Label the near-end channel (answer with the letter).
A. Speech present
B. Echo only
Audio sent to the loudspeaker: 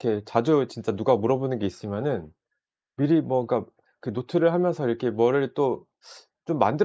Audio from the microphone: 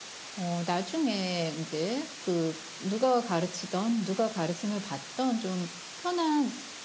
A